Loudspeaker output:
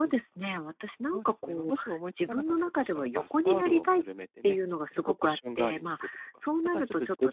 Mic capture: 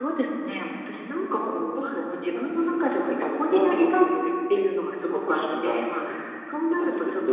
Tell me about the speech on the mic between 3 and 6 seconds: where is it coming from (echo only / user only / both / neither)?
echo only